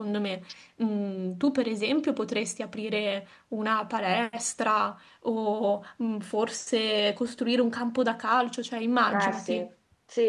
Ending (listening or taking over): taking over